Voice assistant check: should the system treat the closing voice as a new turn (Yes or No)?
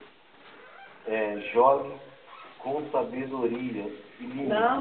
Yes